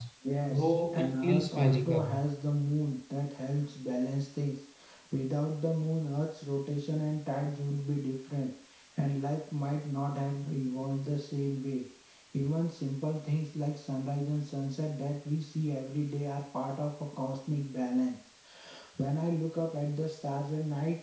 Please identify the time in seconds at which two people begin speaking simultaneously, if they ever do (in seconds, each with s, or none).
0.5 s